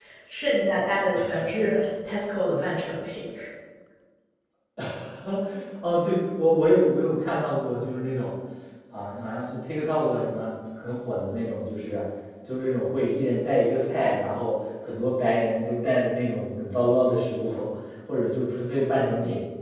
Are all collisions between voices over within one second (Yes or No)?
Yes